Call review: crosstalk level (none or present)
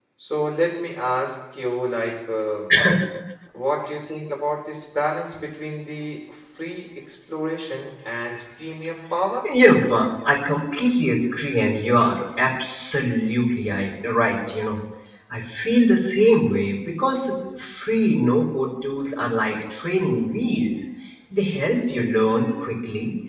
none